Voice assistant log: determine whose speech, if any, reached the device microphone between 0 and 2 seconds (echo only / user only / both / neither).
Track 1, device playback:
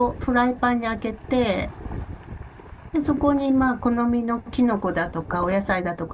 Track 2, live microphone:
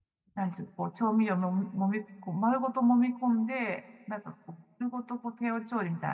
user only